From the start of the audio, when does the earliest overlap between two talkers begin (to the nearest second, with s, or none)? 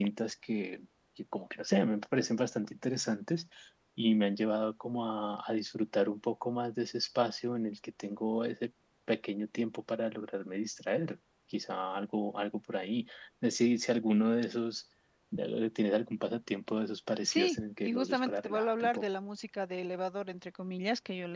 17 s